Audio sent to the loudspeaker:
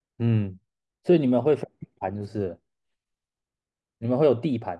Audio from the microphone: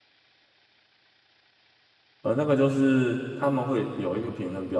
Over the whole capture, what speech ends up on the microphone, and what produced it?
user only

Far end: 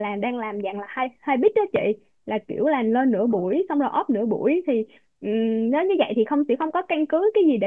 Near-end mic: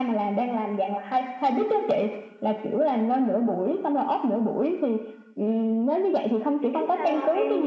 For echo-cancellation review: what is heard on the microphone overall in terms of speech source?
both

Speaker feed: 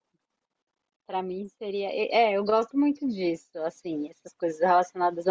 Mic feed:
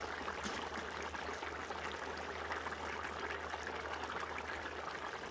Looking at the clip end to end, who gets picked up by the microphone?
neither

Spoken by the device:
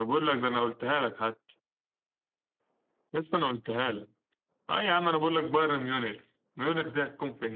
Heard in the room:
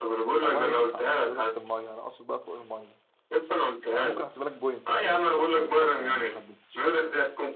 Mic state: both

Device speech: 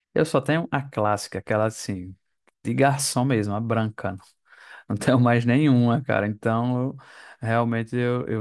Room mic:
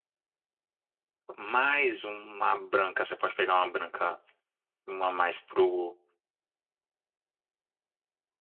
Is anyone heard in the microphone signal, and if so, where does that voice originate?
user only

